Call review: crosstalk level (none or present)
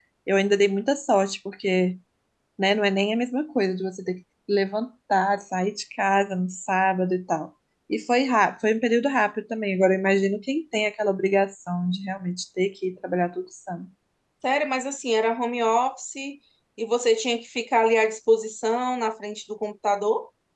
none